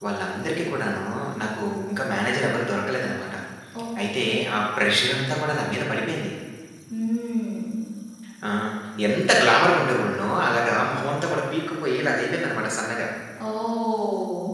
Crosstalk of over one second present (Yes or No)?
No